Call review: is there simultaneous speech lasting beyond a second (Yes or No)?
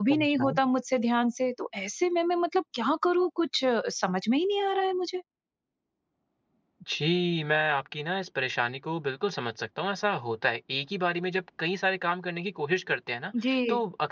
No